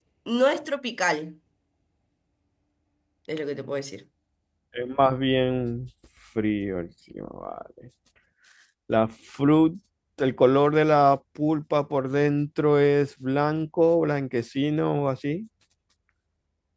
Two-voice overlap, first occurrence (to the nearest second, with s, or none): none